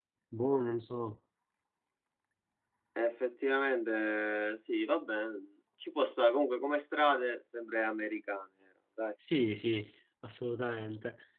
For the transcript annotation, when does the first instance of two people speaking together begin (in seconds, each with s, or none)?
none